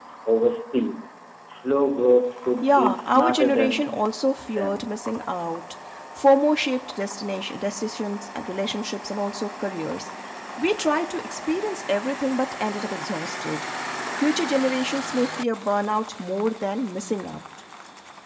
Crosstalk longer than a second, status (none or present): present